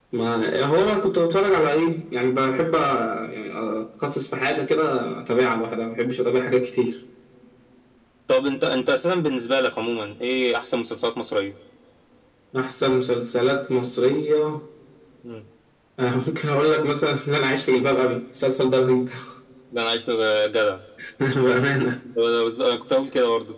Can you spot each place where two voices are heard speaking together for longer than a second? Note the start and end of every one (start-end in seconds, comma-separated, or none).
none